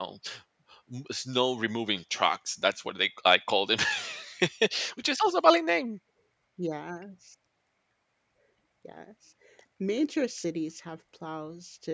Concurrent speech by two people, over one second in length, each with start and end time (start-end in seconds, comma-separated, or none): none